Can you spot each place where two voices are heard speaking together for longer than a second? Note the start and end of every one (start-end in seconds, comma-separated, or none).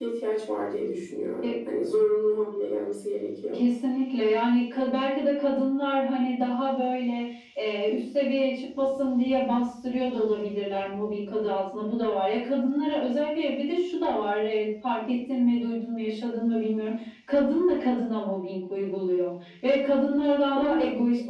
none